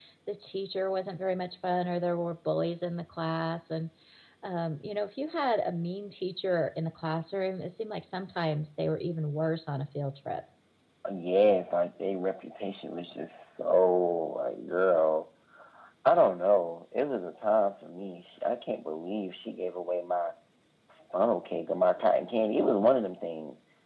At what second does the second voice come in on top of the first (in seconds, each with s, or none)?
none